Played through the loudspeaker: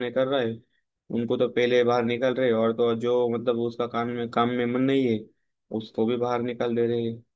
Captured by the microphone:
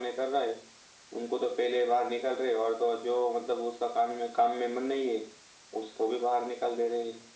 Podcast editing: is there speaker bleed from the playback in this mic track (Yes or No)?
Yes